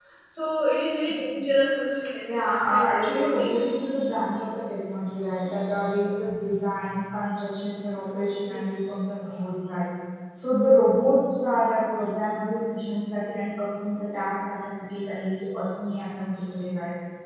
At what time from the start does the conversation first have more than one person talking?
2.3 s

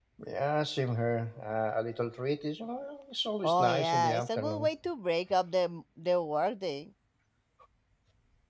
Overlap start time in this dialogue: 3.4 s

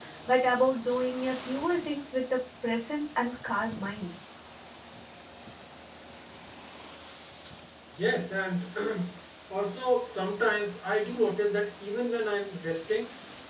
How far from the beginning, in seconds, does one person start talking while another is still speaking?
none

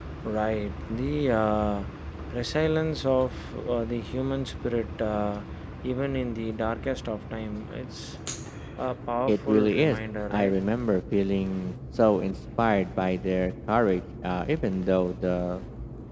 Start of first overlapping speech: 9.3 s

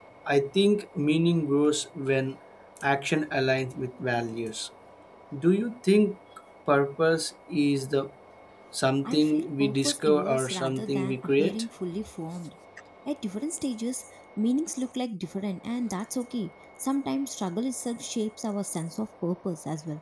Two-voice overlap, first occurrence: 9.1 s

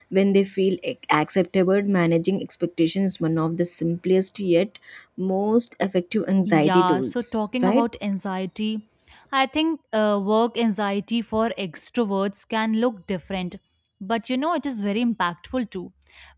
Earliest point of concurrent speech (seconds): 6.4 s

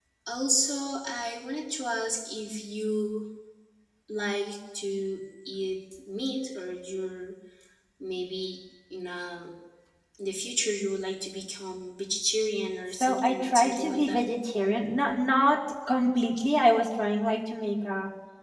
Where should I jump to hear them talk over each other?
13.0 s

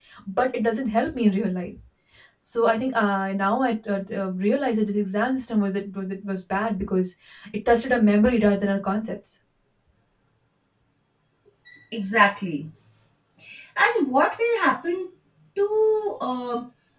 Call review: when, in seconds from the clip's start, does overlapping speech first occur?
none

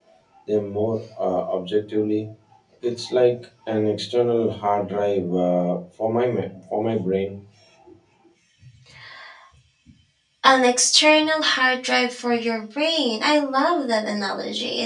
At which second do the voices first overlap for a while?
none

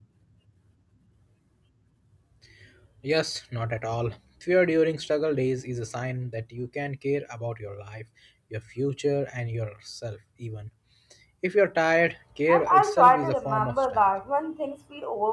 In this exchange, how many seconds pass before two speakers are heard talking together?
12.5 s

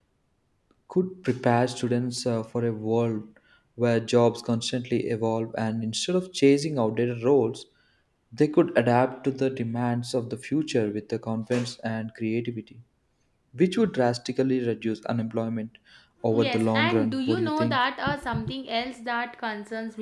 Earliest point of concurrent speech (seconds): 16.3 s

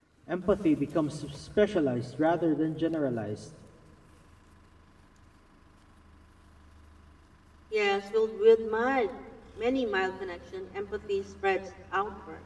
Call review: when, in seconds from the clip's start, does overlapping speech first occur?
none

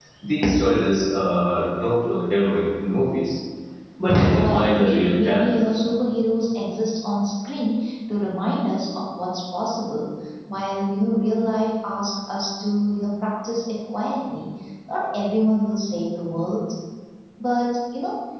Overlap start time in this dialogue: 4.3 s

